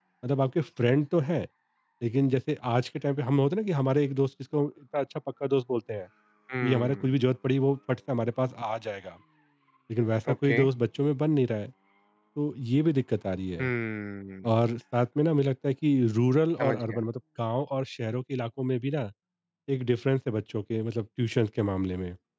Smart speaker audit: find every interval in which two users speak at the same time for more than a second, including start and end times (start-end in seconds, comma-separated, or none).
none